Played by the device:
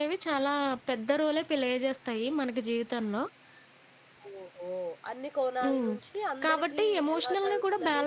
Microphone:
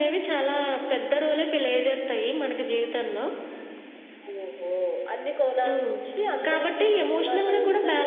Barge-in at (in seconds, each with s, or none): none